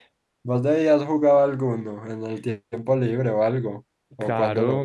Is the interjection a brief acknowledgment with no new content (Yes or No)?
No